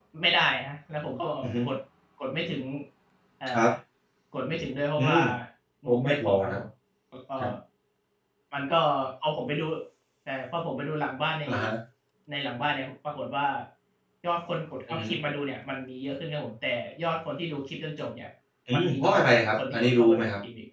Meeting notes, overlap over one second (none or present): present